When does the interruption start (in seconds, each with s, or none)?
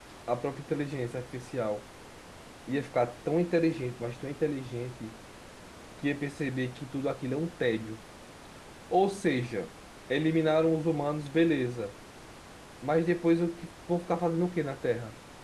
none